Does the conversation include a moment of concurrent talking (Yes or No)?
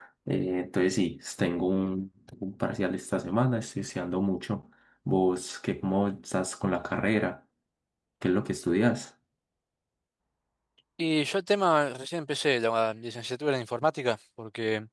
No